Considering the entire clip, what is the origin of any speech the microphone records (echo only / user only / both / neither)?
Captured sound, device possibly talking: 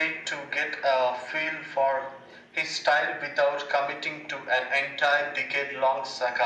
echo only